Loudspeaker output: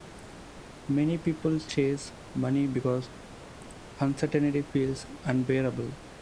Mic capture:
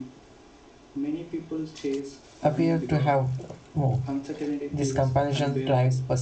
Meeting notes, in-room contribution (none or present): present